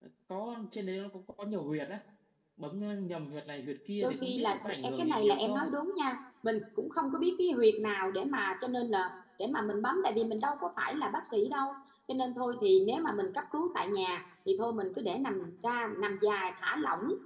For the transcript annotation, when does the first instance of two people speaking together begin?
4.0 s

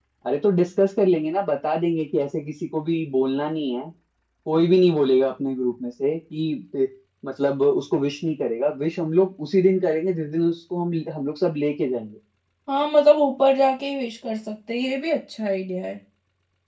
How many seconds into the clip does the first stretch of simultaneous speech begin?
none

